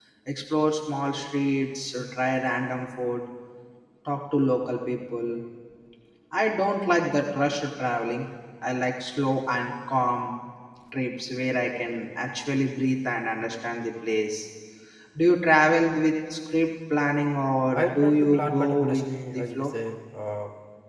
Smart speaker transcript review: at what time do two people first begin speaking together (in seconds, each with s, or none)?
17.8 s